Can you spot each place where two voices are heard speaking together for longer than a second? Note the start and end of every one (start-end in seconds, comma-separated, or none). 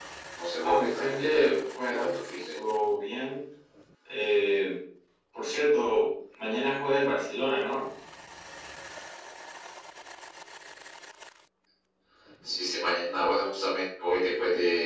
0.6-2.6